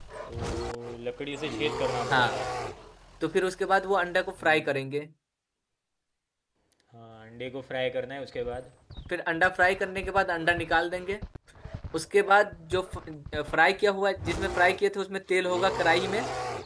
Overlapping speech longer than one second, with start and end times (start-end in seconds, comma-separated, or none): none